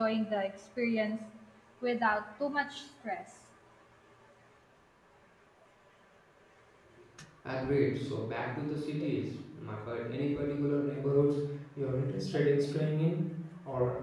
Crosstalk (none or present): none